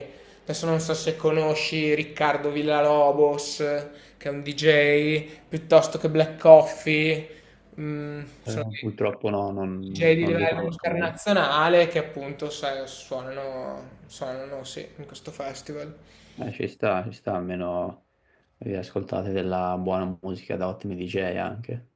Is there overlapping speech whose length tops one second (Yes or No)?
Yes